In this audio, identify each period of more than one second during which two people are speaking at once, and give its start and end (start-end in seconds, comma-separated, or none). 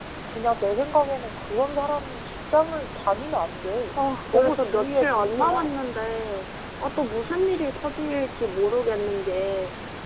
4.3-5.7